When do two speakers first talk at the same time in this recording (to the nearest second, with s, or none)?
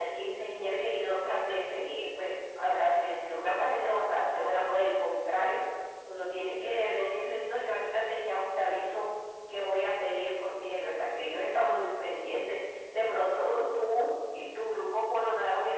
none